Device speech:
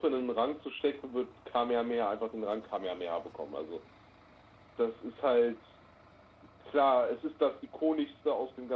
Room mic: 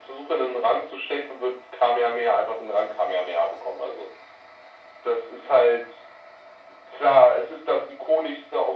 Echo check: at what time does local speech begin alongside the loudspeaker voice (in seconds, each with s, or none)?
none